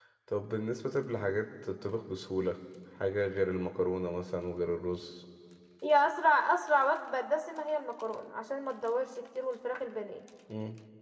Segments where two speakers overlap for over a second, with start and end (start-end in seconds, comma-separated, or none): none